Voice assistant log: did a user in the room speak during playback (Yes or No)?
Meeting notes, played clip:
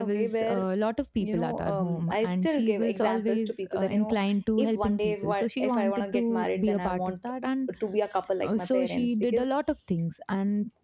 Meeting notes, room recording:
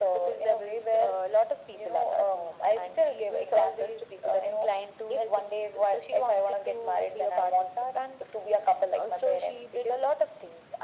No